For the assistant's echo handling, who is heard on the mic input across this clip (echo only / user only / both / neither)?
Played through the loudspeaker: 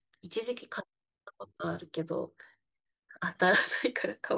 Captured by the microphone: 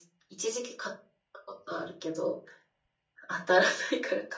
echo only